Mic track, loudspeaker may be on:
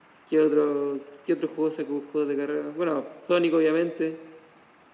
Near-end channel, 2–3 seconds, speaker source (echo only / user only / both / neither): echo only